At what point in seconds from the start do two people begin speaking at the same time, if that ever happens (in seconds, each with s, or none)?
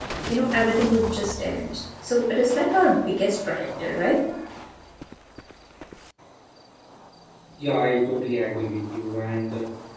none